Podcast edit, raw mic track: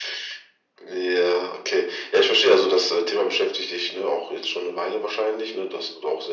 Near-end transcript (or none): none